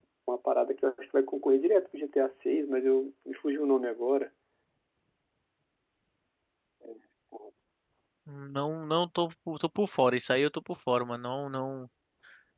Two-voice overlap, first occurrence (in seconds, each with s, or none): none